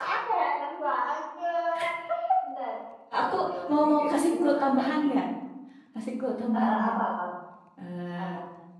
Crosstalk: present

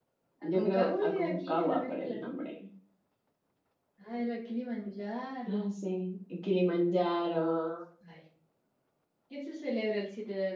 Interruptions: present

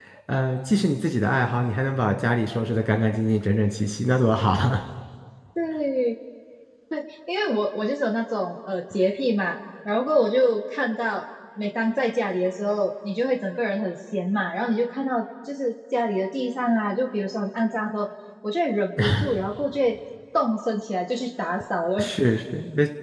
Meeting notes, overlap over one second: none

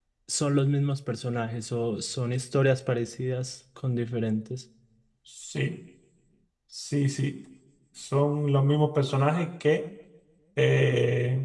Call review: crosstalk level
none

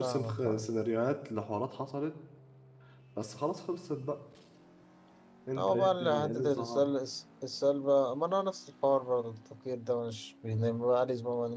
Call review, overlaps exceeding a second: present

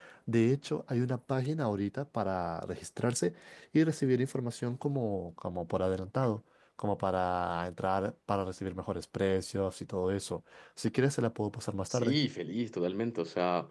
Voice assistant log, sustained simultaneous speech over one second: none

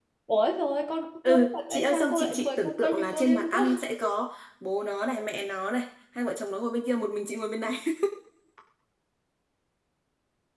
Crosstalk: present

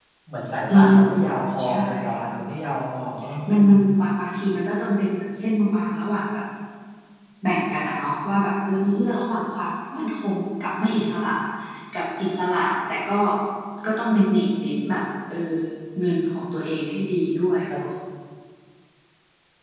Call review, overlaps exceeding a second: none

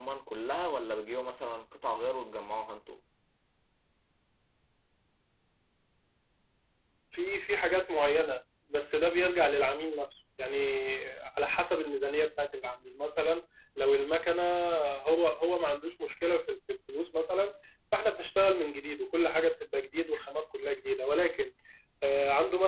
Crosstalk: none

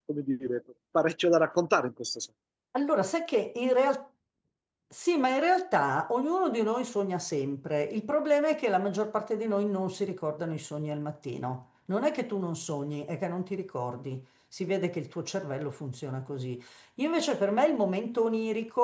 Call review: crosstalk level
none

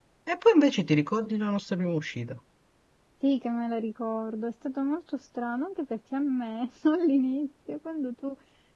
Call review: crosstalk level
none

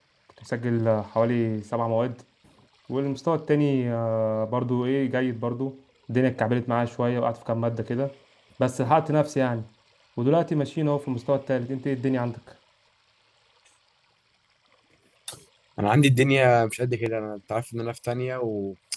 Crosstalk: none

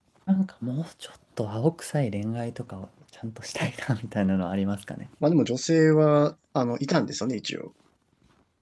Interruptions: none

